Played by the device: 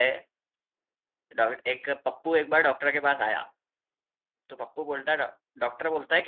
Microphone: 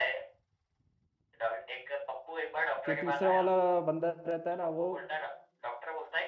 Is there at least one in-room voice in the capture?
Yes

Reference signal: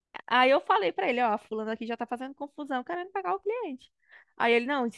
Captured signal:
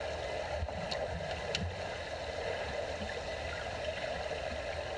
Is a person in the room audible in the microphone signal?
No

